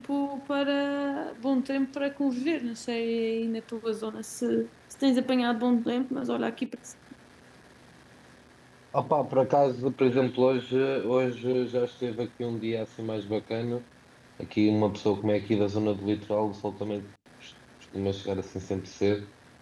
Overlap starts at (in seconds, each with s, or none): none